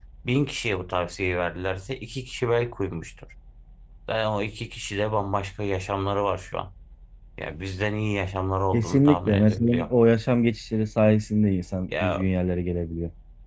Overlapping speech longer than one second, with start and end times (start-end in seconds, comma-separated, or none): 8.7-9.9